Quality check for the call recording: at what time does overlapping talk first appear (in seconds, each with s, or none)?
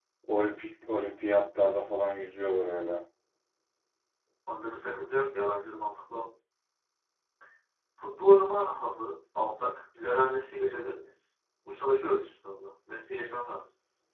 none